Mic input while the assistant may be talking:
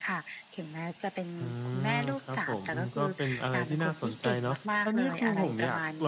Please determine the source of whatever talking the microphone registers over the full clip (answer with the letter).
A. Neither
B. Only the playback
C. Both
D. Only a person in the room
C